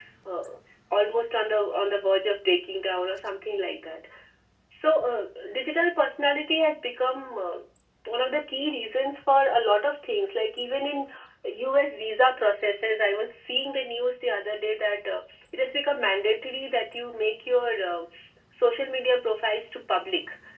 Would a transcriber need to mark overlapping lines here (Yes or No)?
No